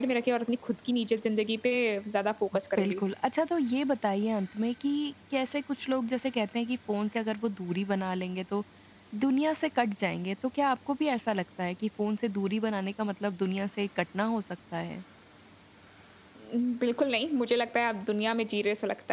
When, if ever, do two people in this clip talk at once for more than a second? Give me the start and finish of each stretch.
none

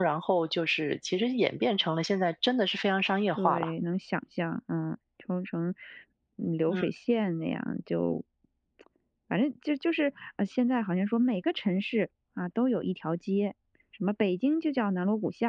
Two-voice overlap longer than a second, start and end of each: none

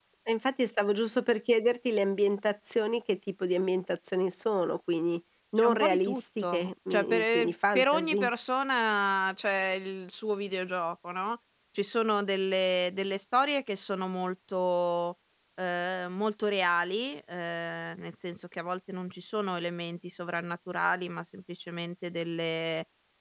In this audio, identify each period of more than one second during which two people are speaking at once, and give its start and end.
5.6-8.3

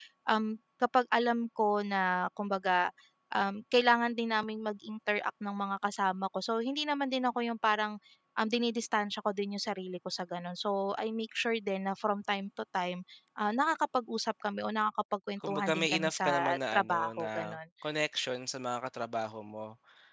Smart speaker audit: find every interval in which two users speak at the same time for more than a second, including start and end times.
15.5-17.6

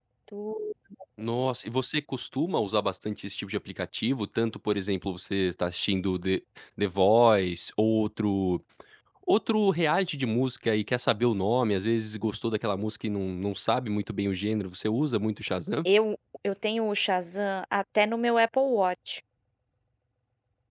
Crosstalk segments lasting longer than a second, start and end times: none

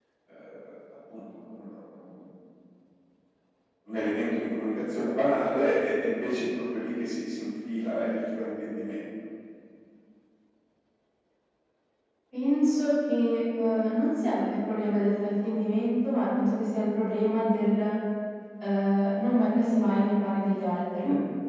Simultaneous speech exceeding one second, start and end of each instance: none

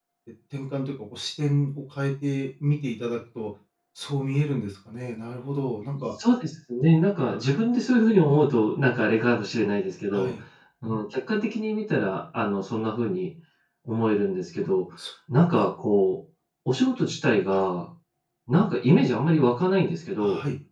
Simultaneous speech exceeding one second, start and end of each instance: none

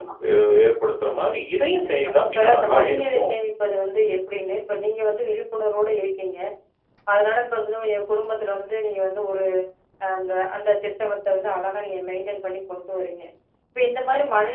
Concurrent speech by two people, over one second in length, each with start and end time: 1.7-3.3

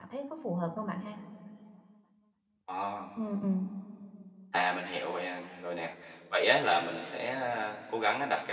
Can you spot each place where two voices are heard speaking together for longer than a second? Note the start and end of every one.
none

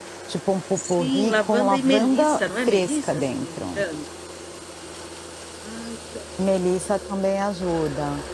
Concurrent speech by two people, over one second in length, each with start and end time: 0.8-3.8

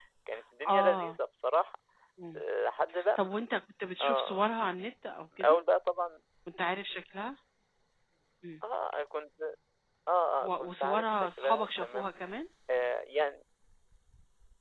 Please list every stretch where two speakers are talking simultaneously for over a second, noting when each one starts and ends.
10.4-12.1

